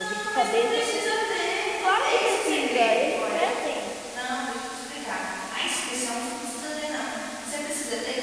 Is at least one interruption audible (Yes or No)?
Yes